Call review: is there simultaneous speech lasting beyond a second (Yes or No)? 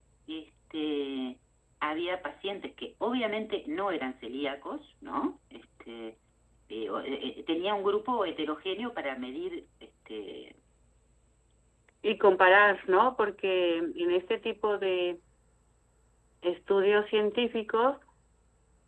No